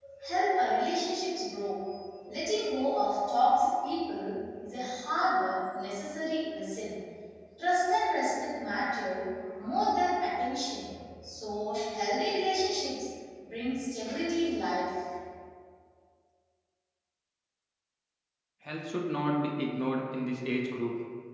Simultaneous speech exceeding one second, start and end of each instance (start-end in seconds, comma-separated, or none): none